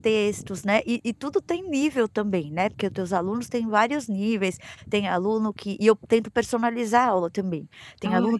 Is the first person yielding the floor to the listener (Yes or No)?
No